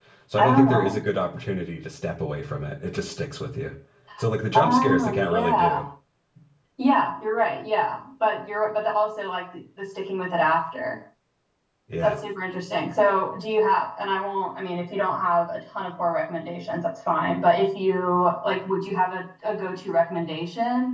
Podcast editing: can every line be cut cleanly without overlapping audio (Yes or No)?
No